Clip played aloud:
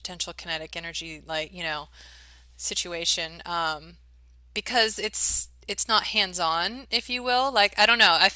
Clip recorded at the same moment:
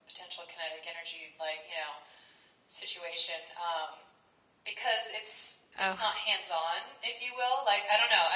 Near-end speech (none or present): present